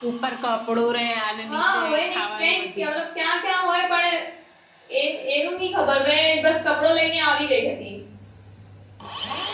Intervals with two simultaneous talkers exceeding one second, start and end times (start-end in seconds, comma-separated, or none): 1.5-2.9